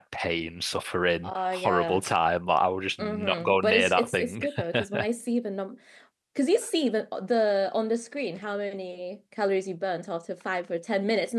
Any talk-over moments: Yes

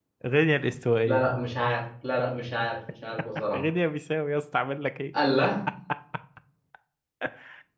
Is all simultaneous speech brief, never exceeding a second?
Yes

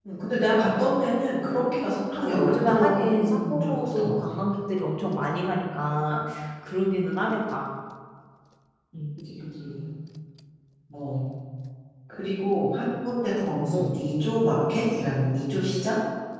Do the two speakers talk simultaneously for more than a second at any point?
Yes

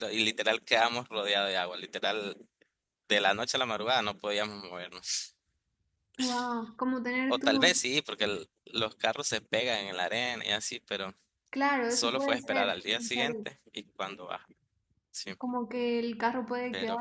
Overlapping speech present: Yes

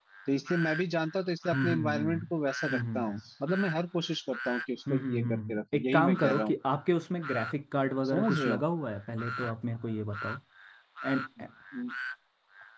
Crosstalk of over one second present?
Yes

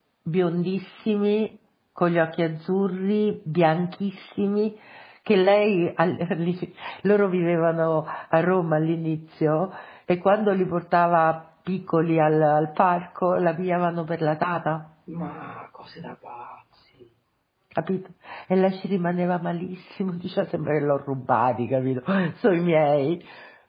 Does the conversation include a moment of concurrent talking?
No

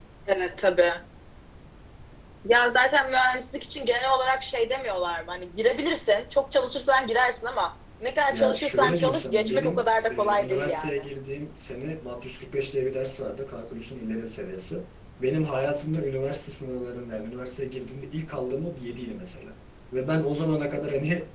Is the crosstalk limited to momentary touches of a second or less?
No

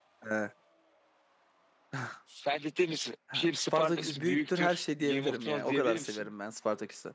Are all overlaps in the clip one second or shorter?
No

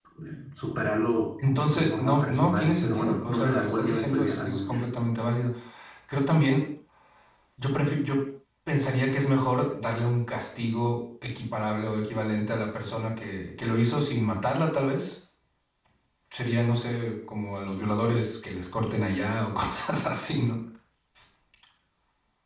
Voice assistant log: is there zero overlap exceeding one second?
No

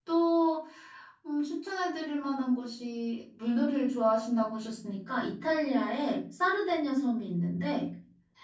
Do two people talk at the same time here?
No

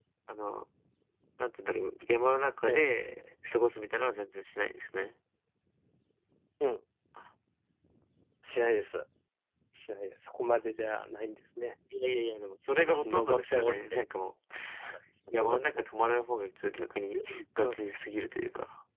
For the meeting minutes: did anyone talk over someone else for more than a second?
Yes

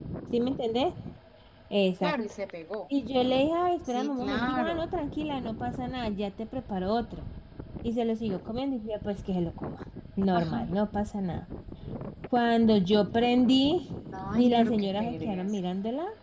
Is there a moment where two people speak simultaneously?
Yes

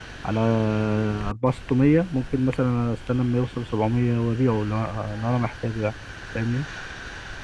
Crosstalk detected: No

